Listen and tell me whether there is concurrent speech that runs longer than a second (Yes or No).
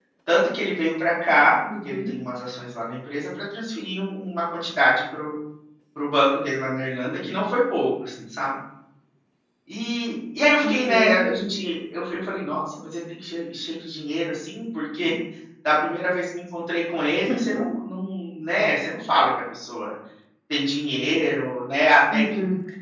No